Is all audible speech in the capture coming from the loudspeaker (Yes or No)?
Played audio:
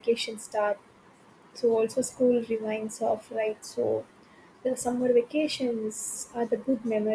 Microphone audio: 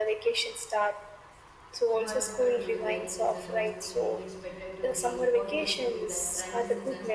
No